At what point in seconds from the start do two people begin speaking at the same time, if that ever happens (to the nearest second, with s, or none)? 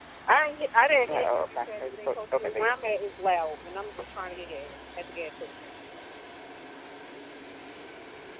1 s